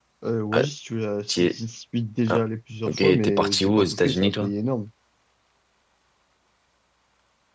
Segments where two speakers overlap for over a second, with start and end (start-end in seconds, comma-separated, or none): 2.9-4.5